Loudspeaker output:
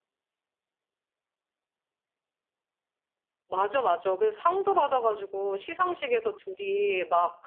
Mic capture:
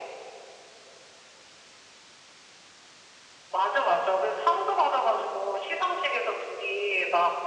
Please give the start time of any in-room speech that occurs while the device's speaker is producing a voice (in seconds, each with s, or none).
none